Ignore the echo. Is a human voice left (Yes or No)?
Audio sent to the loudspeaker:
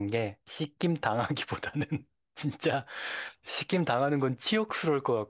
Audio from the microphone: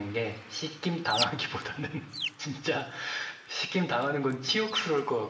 No